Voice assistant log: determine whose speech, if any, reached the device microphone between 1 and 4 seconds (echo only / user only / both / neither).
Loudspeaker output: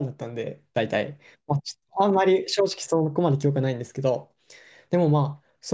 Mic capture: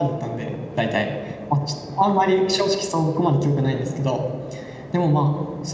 echo only